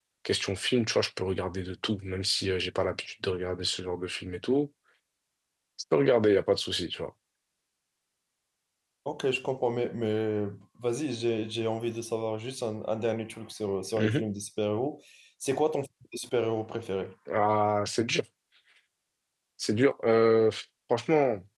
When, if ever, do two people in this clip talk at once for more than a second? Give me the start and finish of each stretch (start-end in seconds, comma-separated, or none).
none